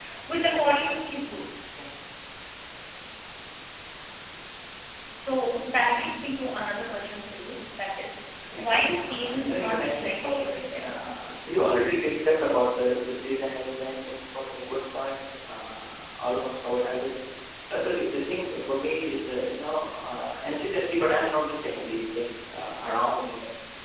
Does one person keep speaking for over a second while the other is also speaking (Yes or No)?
Yes